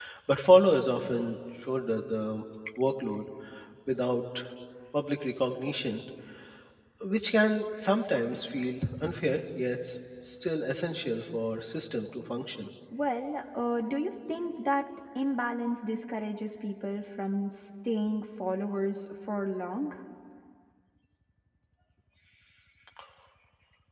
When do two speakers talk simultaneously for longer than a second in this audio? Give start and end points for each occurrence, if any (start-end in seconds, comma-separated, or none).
none